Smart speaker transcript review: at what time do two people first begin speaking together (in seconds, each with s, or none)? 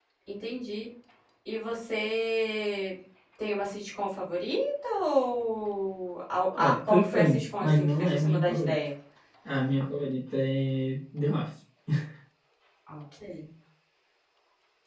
6.5 s